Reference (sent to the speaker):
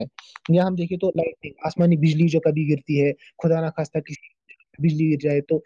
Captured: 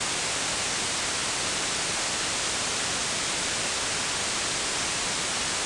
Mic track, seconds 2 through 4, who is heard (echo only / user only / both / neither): neither